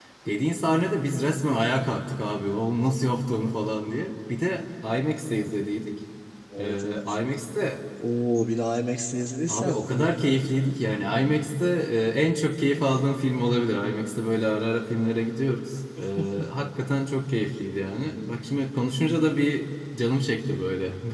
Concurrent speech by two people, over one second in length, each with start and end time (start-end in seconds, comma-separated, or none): none